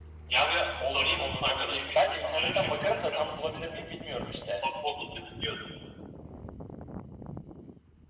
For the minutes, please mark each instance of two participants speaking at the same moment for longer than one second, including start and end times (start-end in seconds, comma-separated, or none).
0.8-3.3